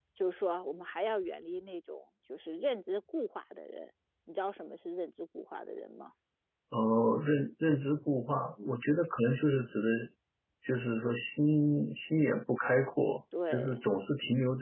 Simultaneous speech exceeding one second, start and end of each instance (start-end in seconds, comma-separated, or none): none